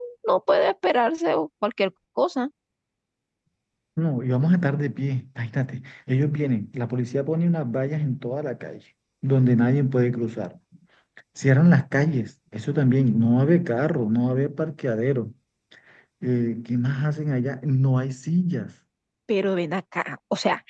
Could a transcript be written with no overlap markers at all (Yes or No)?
Yes